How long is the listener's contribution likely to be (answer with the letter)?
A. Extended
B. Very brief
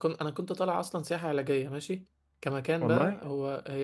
B